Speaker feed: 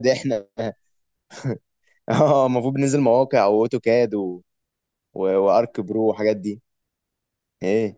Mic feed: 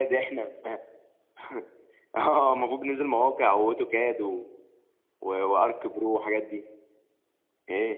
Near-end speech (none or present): none